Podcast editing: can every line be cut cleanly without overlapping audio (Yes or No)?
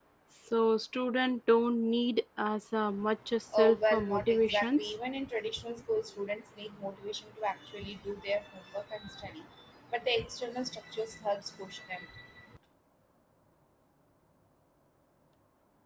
No